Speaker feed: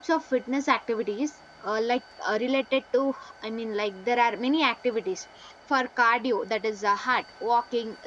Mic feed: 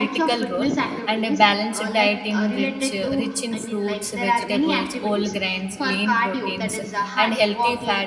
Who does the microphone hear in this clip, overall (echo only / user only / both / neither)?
both